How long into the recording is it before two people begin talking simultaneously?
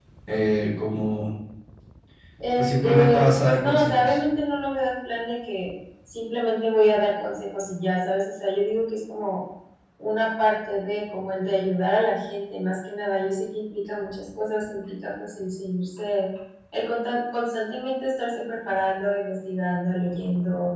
2.6 s

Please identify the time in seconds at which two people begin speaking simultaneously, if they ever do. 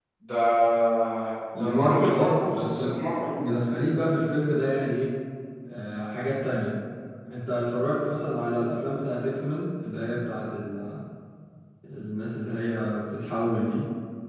1.6 s

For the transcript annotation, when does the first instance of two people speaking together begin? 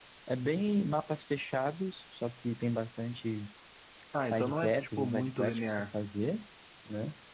4.2 s

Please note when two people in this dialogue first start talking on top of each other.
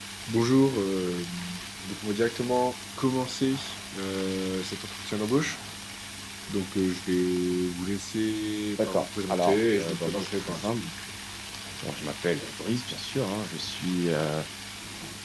8.8 s

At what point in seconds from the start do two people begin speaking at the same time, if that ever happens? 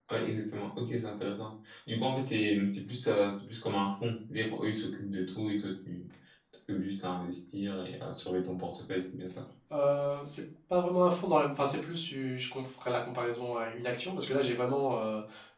none

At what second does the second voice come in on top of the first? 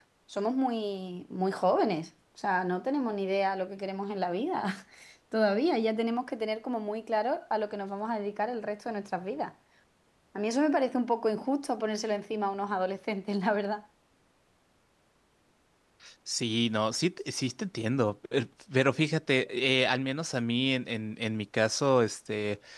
none

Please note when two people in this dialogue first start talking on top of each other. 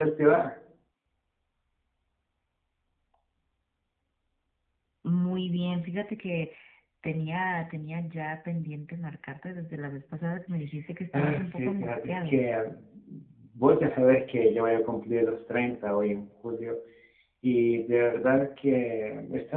11.1 s

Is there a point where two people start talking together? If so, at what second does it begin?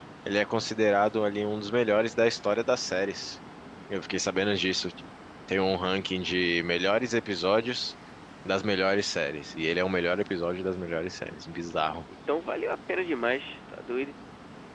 none

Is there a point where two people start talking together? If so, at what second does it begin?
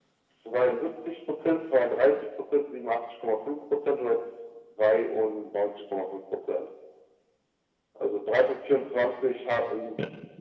none

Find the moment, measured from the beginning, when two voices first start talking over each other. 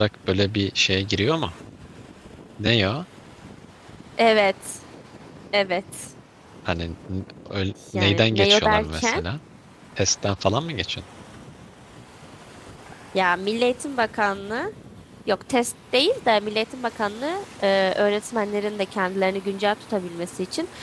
7.9 s

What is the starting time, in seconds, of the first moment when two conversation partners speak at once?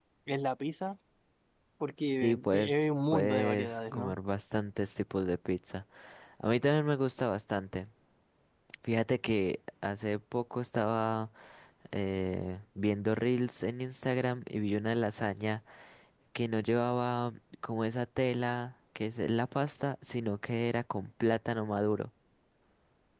2.2 s

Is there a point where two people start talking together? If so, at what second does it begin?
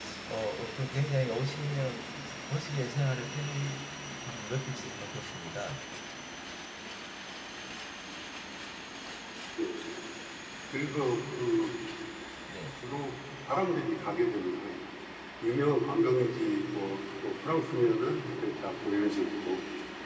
none

